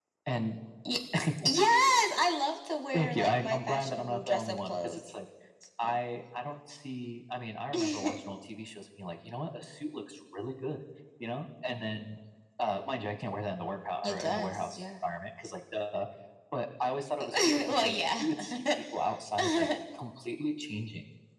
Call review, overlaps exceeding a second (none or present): present